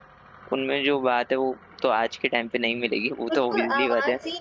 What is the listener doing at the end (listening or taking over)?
taking over